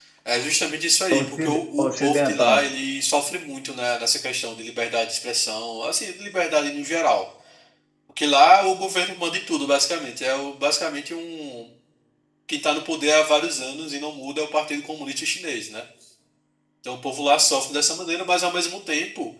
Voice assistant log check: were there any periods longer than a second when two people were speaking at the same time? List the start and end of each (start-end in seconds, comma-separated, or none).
1.2-2.6